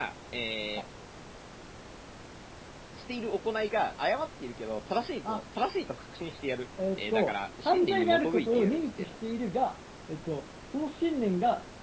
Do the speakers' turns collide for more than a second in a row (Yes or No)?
Yes